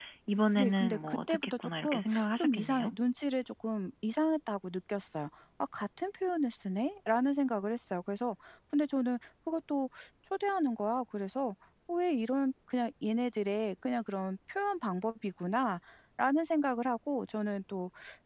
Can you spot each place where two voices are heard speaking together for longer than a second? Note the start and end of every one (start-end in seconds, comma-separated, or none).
0.6-2.9